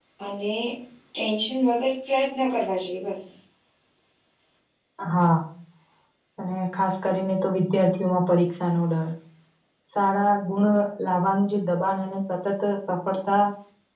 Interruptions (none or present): none